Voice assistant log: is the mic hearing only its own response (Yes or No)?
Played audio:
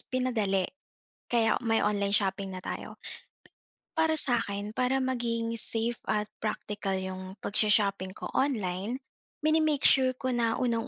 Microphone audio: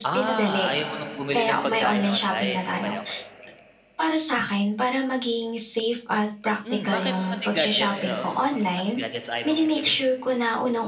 No